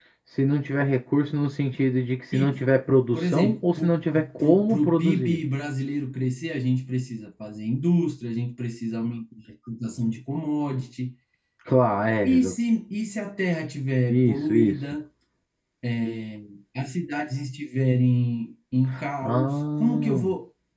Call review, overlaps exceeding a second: present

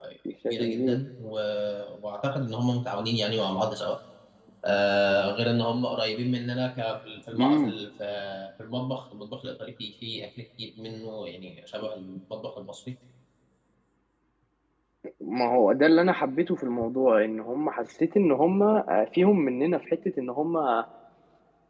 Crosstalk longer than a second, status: none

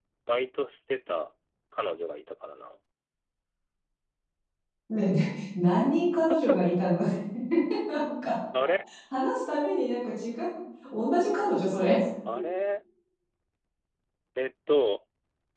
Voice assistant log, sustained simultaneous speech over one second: none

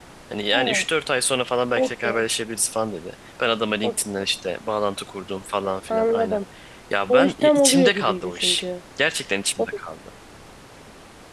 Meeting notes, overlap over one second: present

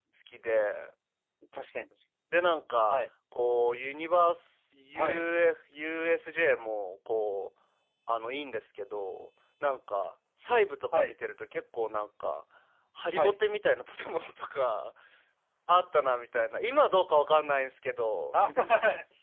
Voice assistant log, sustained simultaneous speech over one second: none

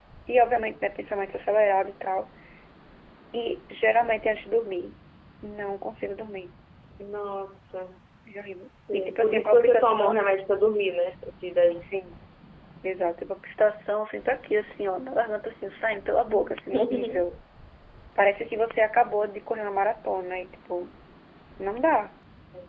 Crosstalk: present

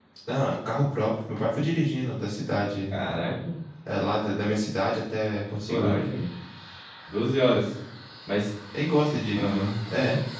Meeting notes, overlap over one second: none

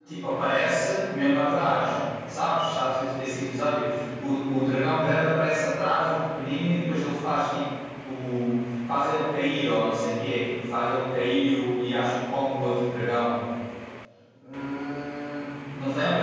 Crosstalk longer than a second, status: none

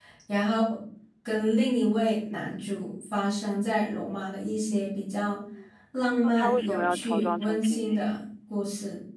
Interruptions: present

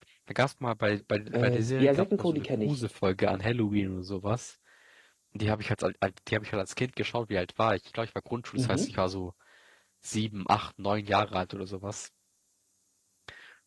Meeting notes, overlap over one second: present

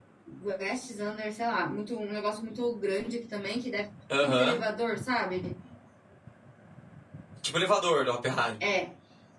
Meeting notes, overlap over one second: none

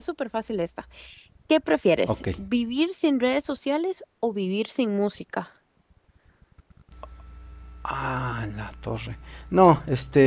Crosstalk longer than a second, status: none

